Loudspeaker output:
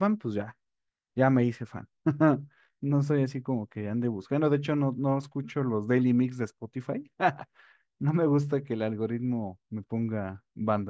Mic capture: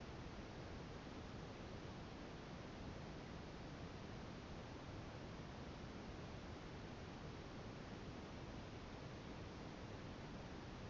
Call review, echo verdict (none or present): none